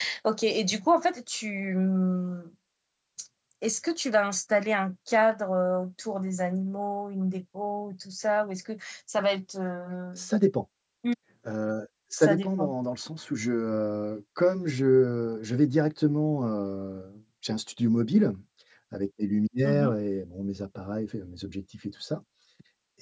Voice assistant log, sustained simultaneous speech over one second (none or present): none